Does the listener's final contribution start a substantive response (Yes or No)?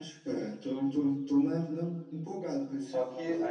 Yes